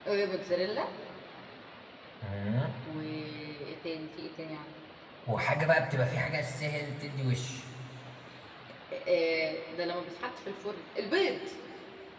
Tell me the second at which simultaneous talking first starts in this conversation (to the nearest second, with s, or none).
none